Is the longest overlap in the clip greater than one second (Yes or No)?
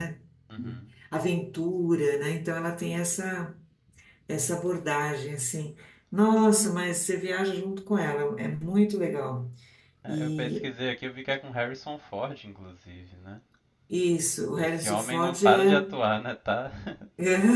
Yes